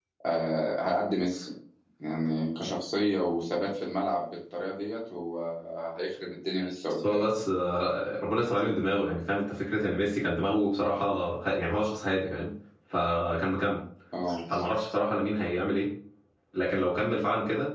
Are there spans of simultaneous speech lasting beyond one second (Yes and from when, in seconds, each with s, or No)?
No